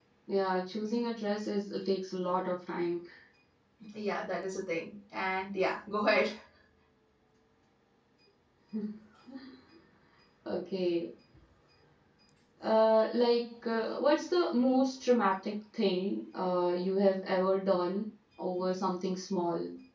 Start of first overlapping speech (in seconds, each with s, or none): none